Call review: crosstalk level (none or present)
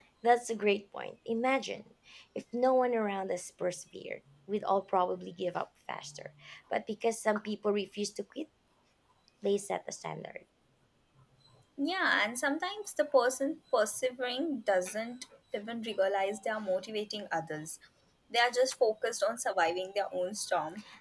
none